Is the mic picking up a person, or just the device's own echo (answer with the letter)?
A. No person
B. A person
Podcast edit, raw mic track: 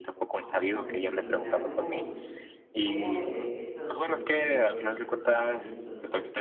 B